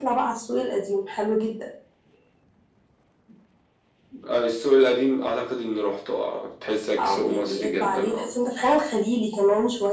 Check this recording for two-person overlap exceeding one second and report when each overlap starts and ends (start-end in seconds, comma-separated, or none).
7.0-8.3